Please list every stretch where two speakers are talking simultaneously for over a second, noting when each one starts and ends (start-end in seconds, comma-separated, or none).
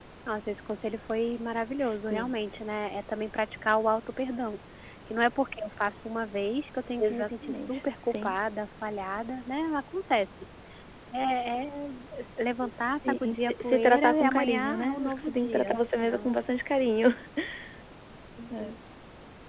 7.0-8.4, 13.0-16.3